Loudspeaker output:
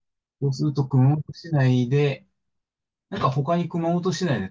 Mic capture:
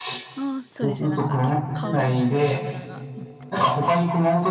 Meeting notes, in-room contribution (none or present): present